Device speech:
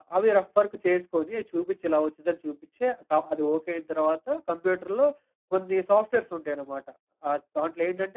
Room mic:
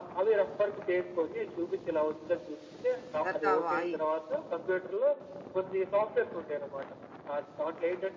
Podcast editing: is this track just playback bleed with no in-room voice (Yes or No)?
No